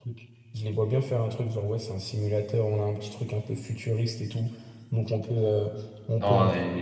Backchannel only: No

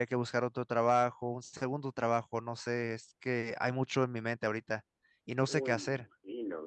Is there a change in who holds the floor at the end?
Yes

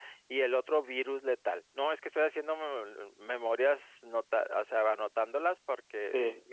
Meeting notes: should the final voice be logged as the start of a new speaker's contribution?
Yes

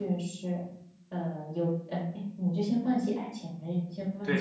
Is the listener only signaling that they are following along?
No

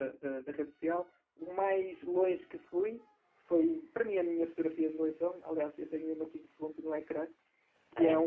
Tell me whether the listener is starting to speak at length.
No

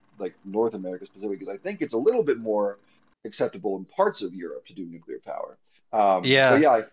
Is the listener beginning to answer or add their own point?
No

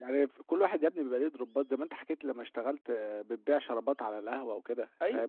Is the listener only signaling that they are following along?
No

